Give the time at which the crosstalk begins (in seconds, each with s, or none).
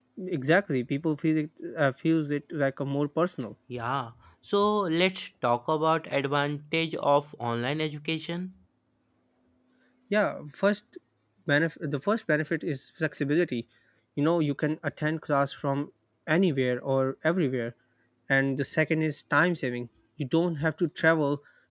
none